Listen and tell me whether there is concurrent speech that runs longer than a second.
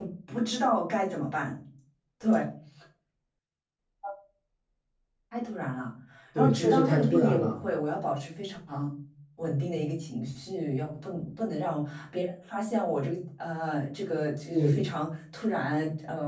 Yes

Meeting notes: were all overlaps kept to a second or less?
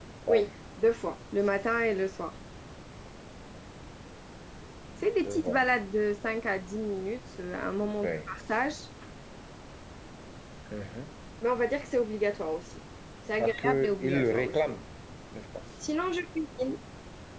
No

